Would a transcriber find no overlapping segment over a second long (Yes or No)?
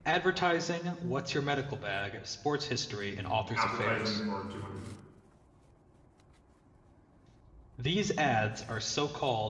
No